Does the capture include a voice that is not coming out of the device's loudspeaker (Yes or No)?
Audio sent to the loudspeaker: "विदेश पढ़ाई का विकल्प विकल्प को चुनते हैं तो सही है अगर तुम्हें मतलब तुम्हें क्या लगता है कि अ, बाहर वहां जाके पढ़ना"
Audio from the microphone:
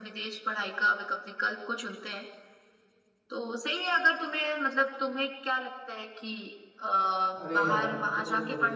Yes